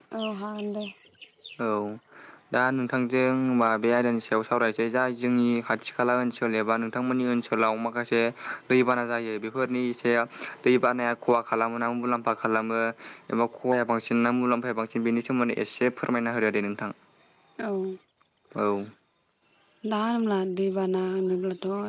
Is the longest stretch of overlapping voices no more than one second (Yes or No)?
Yes